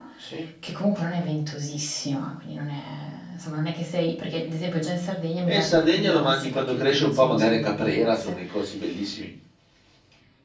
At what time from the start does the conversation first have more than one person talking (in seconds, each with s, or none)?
5.5 s